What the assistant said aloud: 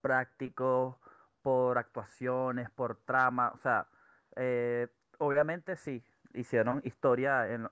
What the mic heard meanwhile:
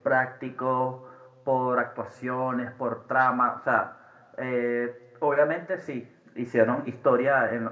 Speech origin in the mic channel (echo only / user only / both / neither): echo only